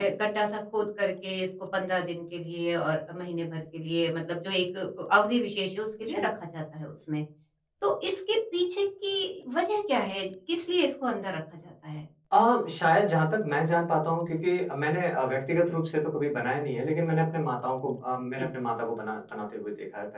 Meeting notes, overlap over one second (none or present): none